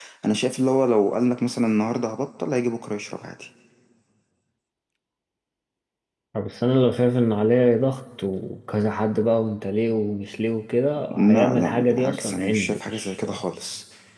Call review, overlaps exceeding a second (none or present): present